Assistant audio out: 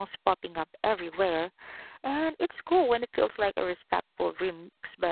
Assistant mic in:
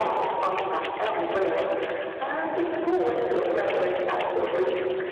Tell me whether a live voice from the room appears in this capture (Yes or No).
No